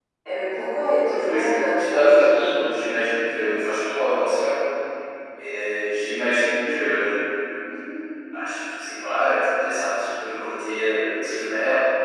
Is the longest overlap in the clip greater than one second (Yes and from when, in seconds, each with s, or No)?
Yes, from 1.1 s